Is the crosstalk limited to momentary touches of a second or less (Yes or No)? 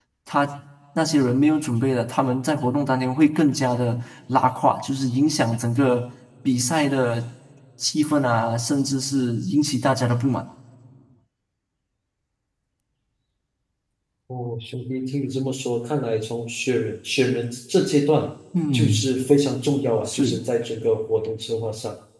Yes